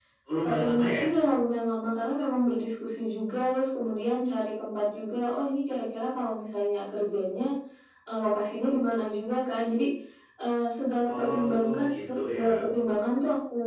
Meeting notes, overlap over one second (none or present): present